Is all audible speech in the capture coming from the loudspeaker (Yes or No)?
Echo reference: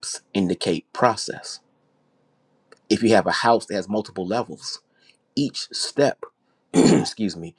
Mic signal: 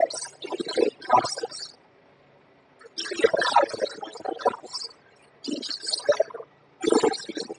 Yes